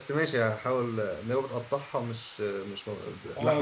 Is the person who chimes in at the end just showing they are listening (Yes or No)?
No